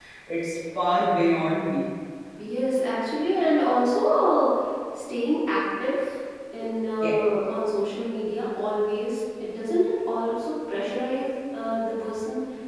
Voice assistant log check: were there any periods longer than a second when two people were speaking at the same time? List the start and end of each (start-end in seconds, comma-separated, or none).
none